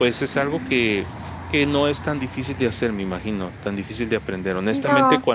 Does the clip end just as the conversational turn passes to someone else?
No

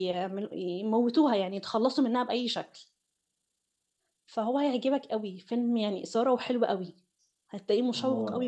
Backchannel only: Yes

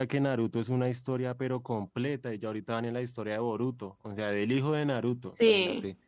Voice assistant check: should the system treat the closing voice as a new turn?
No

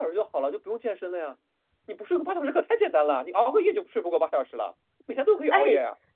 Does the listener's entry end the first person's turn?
Yes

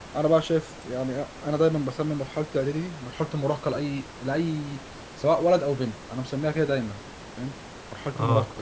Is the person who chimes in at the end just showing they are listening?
No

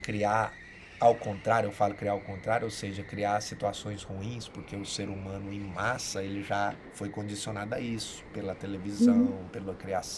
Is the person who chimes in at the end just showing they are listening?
Yes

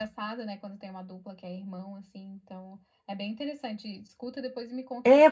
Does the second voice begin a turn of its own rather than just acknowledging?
Yes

